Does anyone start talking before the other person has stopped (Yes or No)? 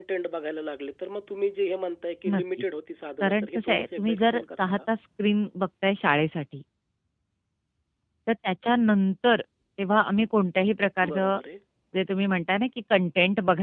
Yes